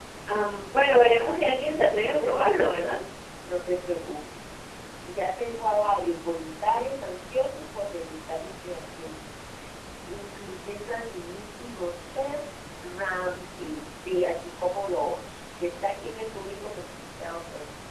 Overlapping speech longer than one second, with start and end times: 1.2-2.7

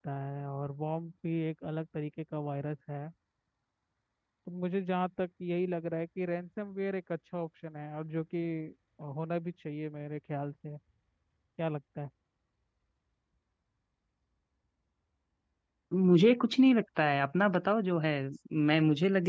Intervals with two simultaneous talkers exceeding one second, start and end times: none

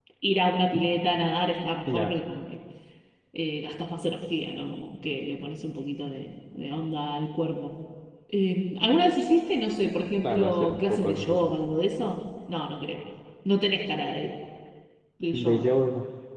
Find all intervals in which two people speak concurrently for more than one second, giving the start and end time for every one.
10.2-11.5

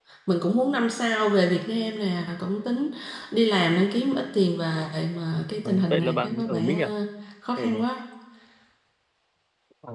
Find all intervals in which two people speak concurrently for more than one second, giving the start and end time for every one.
5.7-6.9

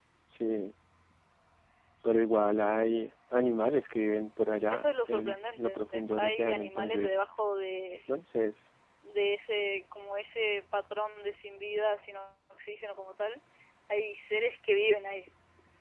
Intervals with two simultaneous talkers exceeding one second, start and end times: 4.7-7.2

